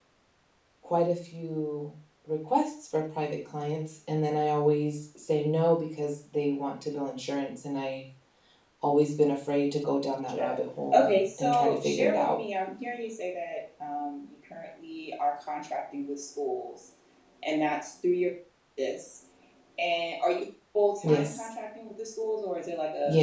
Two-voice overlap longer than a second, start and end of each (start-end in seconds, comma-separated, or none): 10.9-12.4